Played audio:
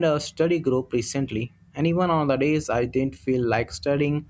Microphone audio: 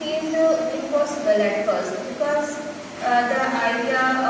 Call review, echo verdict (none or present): none